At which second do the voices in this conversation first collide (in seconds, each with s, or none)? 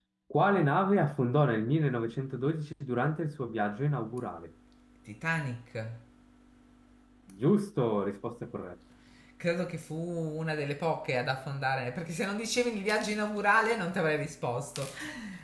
none